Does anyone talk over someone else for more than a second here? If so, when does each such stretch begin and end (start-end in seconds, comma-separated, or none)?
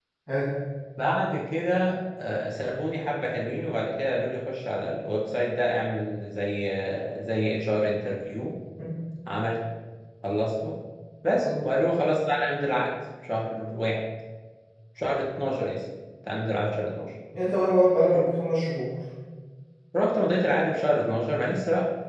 none